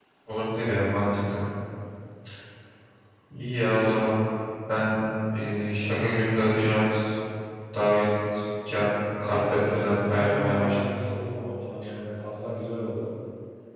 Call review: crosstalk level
present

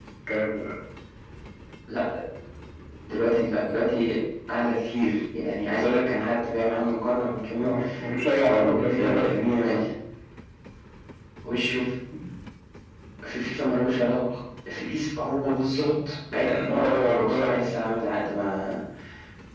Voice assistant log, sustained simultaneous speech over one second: present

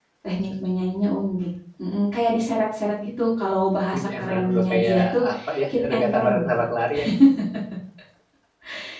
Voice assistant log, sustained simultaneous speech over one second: present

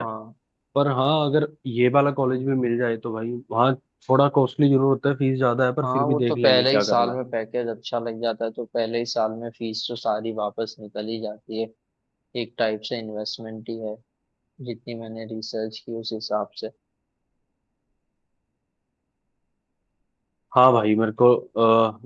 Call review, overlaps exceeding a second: present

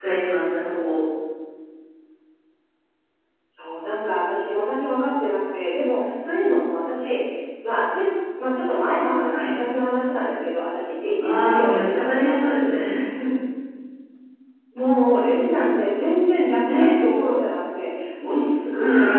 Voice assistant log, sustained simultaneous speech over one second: present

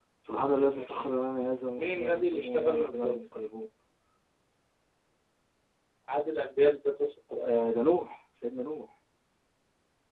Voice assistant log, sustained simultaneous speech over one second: present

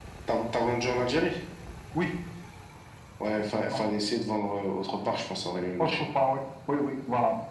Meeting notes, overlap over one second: none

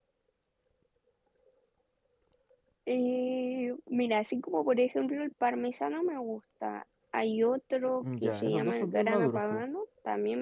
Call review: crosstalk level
present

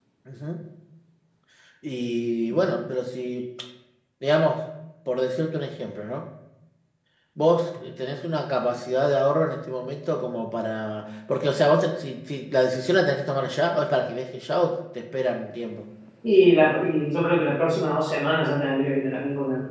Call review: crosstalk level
none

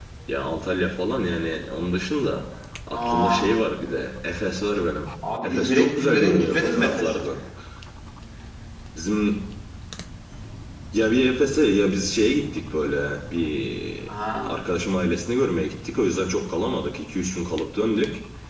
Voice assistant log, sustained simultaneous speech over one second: present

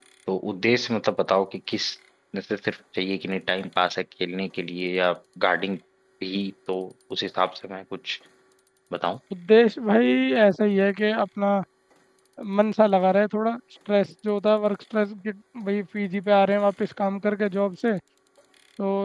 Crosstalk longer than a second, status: none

